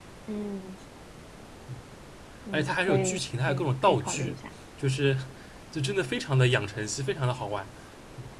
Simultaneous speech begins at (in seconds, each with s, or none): 2.5 s